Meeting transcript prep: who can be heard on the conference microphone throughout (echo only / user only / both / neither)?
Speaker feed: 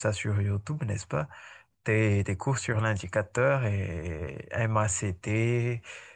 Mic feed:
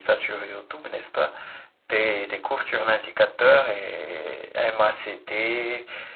echo only